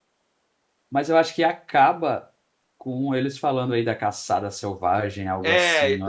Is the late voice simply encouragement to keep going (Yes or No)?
No